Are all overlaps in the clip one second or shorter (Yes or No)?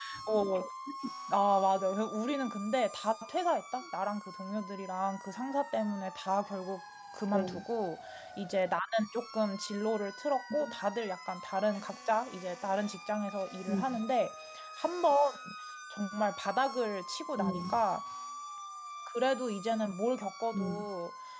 Yes